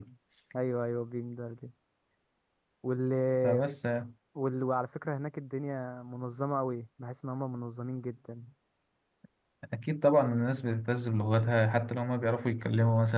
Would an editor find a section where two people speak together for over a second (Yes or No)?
No